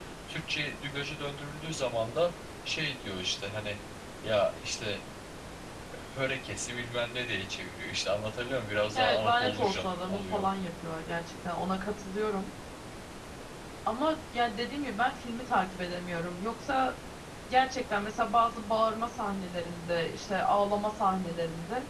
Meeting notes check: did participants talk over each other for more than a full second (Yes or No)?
Yes